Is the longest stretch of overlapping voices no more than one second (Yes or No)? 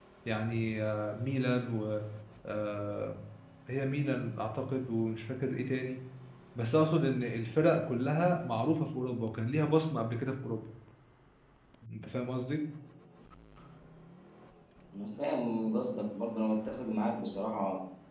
Yes